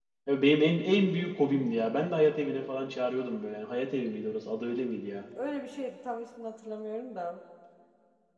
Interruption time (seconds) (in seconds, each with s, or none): none